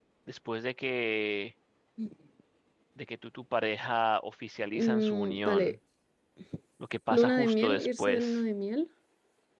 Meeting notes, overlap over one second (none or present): present